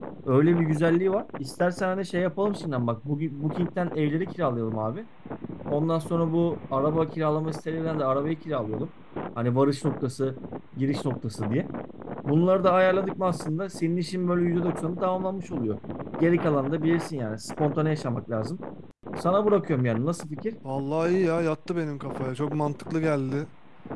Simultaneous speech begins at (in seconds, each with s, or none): none